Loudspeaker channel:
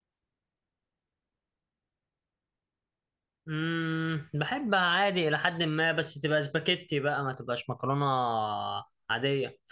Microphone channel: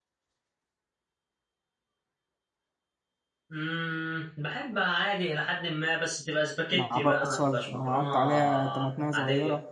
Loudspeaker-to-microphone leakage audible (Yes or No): Yes